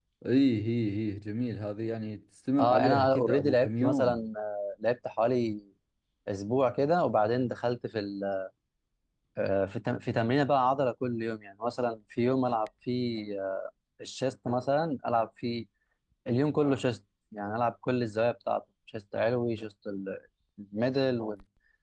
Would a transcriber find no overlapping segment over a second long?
No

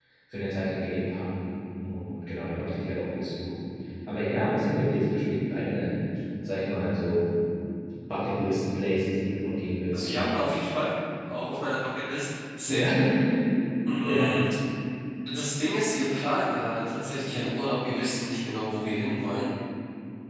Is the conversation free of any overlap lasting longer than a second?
Yes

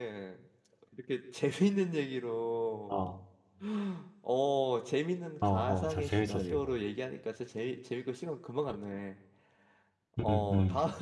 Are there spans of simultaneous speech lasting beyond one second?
Yes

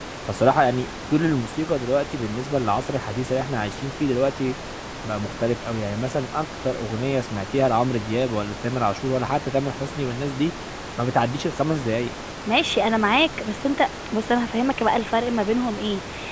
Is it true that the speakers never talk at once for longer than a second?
Yes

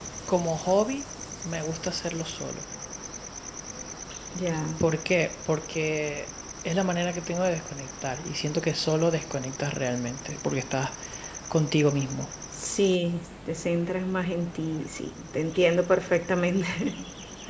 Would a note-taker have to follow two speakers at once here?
No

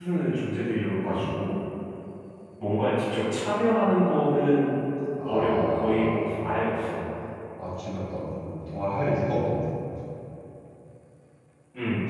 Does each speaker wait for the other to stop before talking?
No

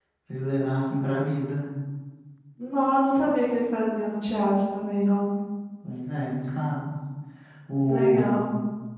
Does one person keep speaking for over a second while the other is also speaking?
No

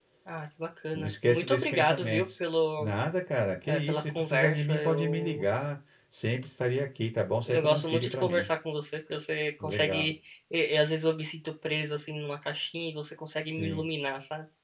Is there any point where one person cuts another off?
Yes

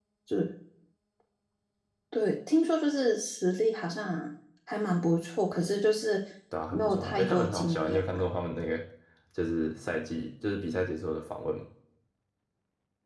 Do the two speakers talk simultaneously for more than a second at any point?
Yes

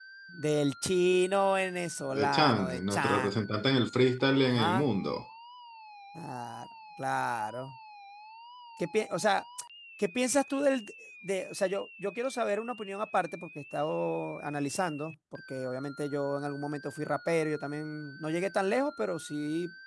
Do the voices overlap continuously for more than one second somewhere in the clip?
Yes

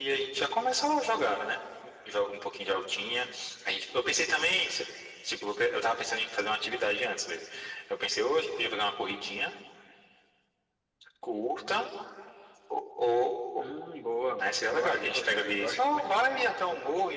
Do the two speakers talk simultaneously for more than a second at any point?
Yes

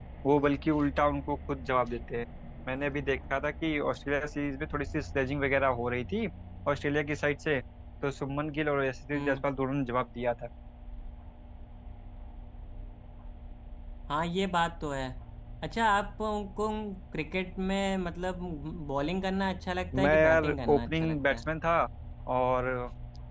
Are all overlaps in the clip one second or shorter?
No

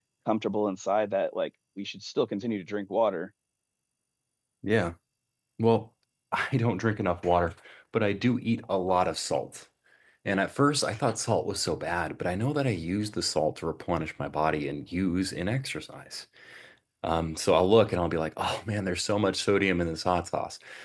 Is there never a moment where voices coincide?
Yes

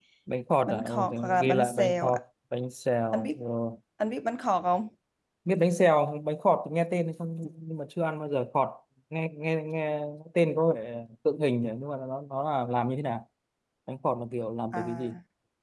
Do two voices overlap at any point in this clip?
Yes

